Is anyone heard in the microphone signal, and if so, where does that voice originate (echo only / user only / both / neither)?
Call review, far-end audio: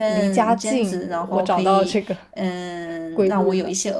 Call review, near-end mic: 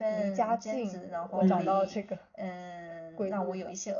both